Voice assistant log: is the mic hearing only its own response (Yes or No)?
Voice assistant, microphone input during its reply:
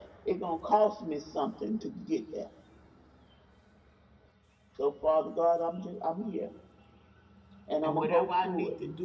No